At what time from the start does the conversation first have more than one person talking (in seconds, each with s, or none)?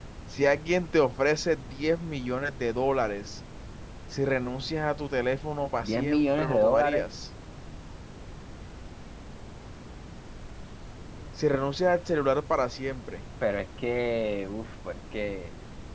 5.8 s